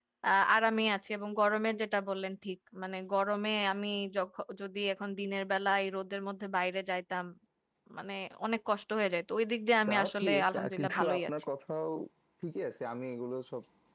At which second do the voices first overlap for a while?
9.9 s

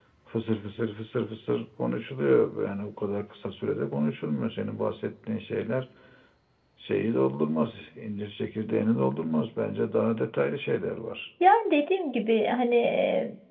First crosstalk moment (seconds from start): none

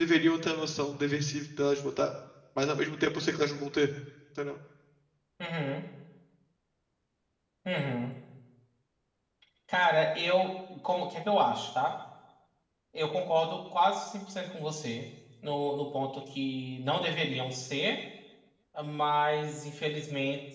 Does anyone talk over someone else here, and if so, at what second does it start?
none

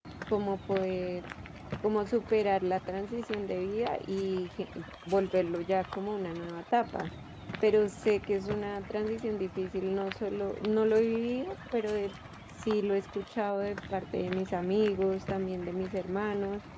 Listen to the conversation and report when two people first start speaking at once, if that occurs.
none

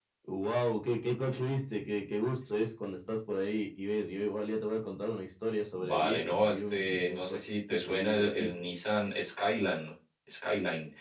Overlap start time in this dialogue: 5.8 s

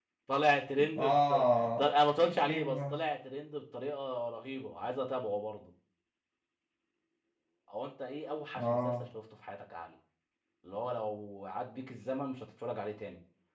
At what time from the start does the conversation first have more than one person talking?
1.0 s

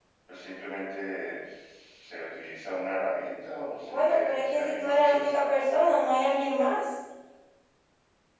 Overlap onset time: 3.9 s

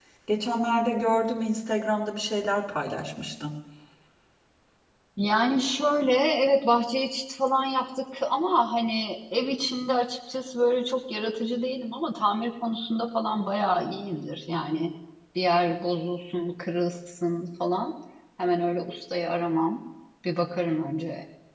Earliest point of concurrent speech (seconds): none

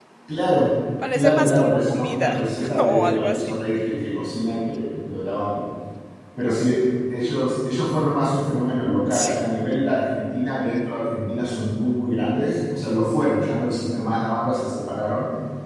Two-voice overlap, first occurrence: 1.1 s

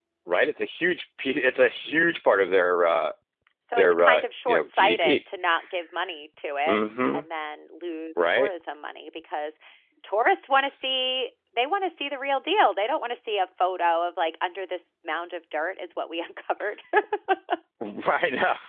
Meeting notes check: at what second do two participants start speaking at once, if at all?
3.8 s

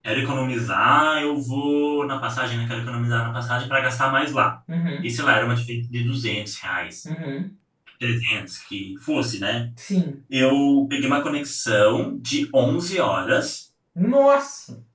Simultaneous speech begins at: none

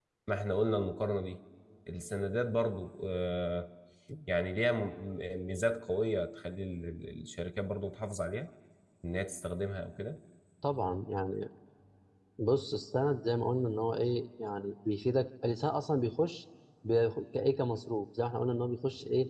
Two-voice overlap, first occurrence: none

